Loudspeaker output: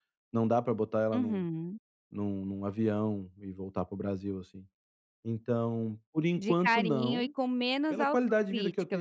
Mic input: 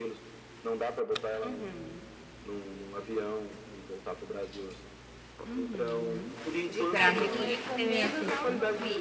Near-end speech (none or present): present